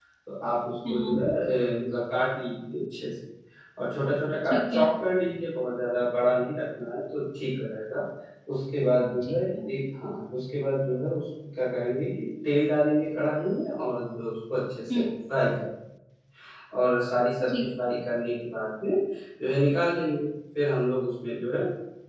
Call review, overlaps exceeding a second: none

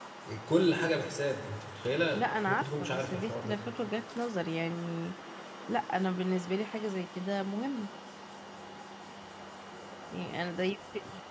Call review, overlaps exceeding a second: present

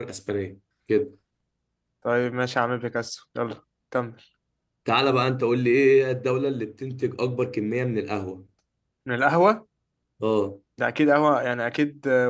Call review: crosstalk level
none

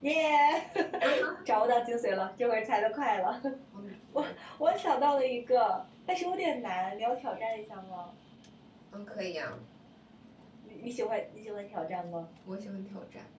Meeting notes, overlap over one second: none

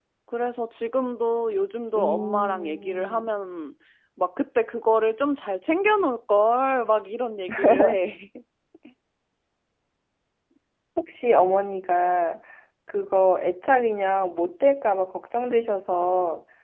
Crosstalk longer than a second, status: present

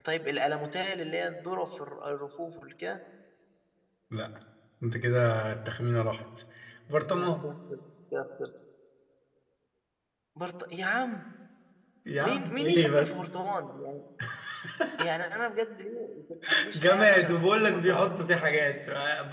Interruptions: present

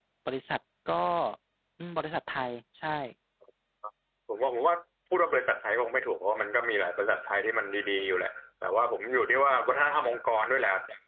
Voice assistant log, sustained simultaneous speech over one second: none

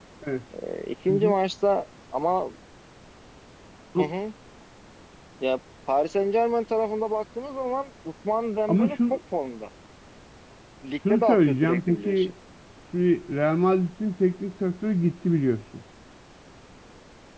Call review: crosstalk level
present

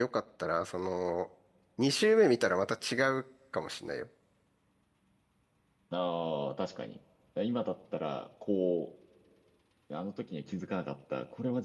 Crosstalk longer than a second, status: none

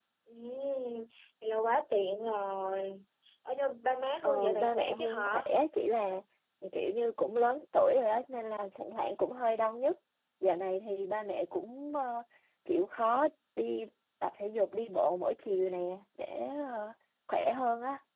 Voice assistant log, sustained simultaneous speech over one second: present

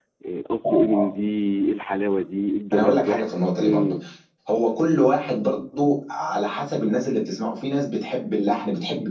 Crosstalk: present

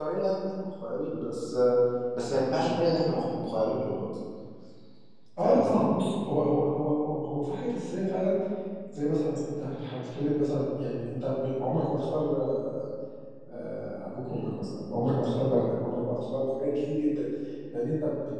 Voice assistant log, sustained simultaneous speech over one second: none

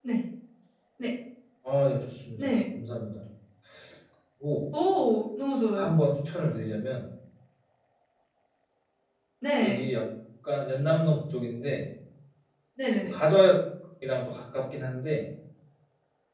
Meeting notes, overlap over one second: none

